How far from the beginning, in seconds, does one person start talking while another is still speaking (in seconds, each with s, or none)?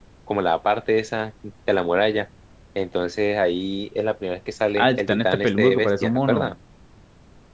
4.8 s